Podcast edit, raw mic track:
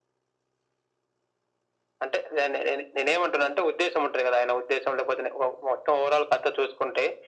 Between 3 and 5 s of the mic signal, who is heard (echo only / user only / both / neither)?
echo only